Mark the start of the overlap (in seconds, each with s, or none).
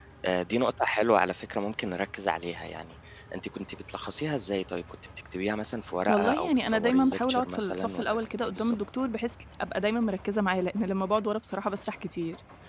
6.1 s